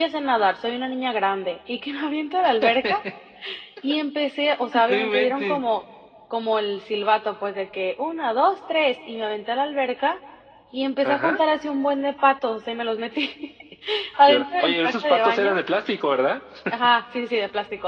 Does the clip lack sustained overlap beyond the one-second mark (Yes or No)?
No